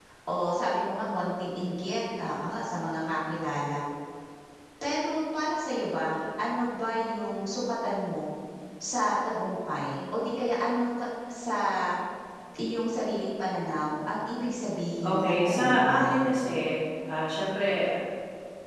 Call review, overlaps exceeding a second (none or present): present